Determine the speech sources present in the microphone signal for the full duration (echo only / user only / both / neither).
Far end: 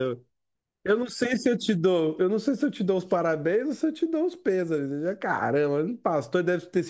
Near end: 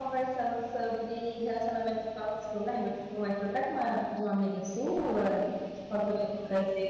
user only